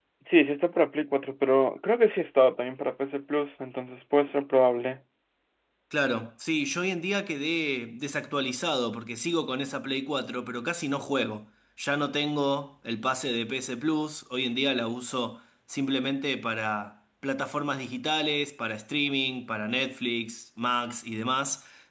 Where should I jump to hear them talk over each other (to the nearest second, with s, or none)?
none